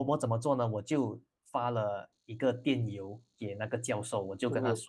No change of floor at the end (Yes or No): Yes